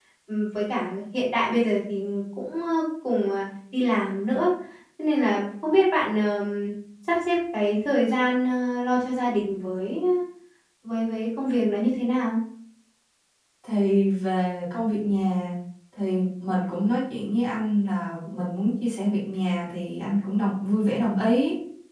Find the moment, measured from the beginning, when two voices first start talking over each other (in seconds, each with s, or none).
none